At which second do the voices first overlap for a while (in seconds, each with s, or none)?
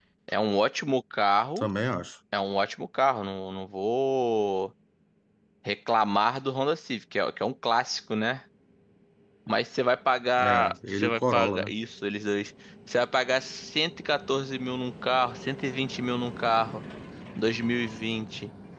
10.4 s